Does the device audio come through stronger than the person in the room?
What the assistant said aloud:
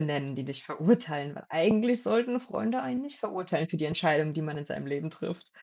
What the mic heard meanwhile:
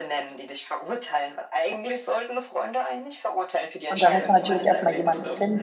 No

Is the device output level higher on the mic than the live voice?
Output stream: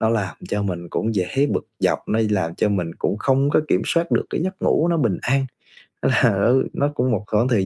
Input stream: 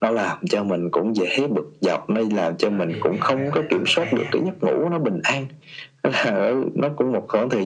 Yes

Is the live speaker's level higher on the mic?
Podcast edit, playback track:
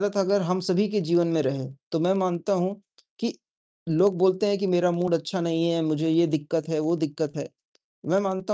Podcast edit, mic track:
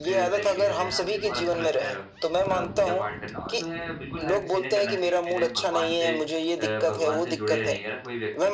No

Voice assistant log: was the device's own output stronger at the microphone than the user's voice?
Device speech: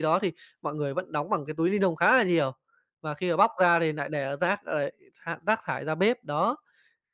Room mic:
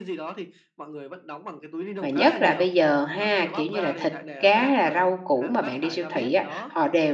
No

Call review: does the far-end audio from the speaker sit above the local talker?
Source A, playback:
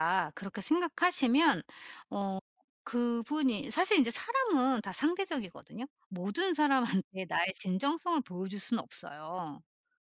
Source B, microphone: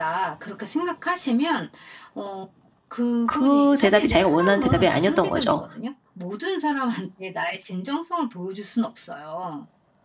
No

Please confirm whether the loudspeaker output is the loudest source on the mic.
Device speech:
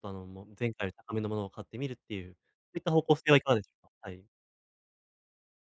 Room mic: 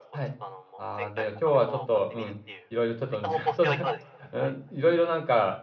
No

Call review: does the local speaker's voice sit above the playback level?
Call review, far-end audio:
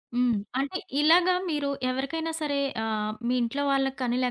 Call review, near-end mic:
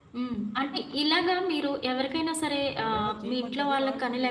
No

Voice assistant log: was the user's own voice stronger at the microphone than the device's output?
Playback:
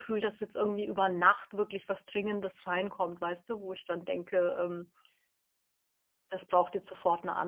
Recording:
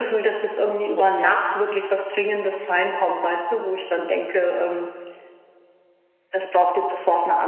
No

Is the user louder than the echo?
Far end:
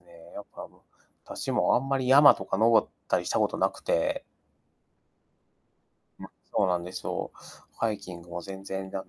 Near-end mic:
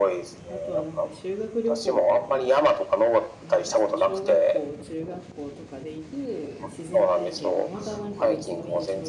No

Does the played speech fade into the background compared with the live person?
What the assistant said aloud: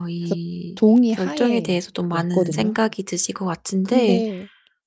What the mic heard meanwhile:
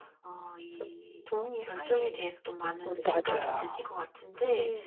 Yes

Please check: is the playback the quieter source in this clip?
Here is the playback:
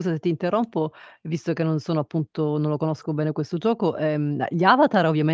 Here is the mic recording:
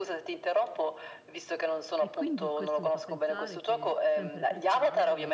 No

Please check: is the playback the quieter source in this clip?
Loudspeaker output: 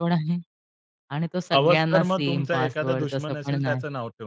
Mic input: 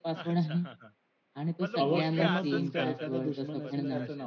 No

